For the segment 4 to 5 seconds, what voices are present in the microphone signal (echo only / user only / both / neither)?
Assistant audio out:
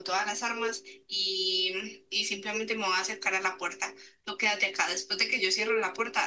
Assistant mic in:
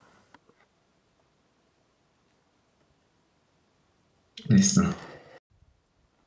user only